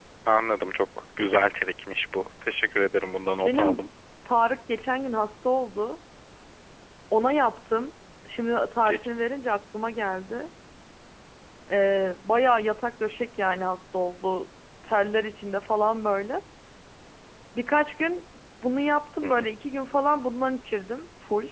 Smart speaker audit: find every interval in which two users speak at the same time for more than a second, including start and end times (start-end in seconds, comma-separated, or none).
none